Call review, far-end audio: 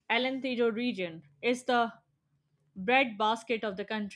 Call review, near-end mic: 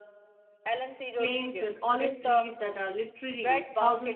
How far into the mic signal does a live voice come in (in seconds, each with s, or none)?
1.2 s